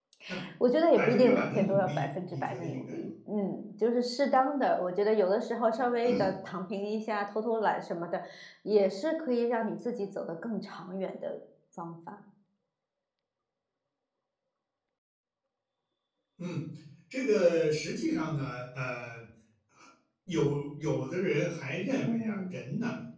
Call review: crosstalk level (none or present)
present